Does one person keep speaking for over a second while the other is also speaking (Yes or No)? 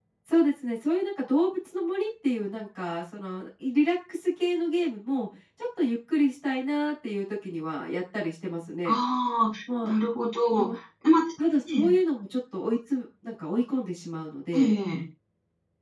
No